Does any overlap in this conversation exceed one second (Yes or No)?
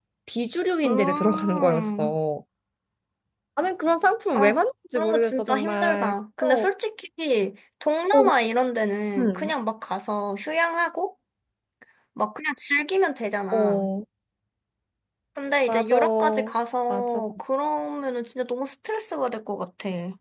Yes